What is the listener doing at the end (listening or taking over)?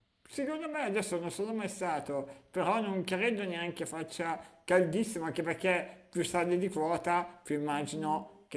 listening